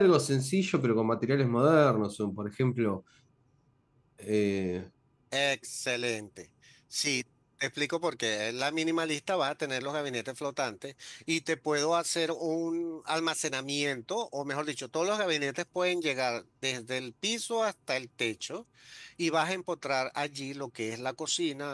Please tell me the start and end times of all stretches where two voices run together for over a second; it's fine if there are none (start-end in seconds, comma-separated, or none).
none